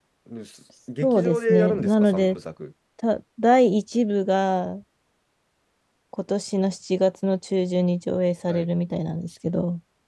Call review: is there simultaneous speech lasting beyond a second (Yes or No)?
Yes